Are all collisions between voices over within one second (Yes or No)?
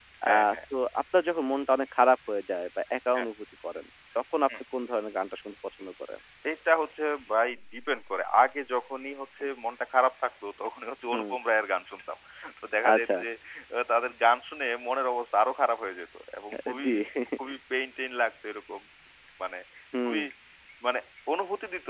Yes